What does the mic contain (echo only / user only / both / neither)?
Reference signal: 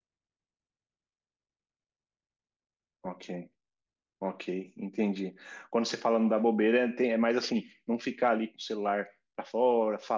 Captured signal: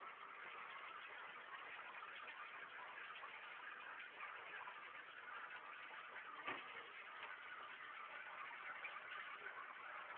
neither